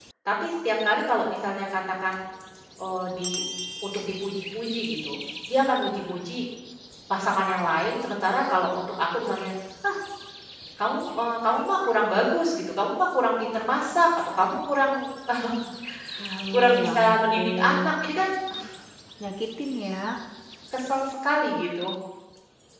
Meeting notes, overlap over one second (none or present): present